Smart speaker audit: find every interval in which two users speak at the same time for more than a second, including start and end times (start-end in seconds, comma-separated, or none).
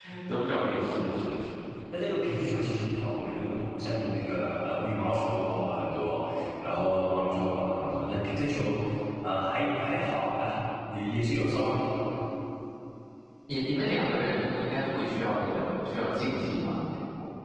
none